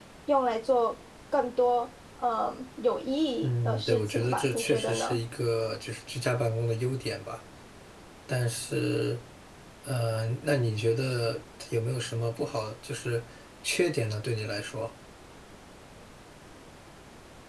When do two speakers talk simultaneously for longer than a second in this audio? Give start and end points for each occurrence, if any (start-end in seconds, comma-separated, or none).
3.4-5.2